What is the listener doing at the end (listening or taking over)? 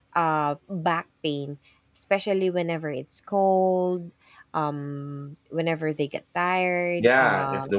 taking over